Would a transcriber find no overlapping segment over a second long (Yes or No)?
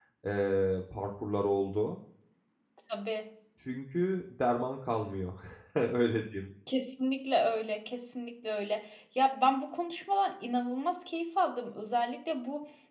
Yes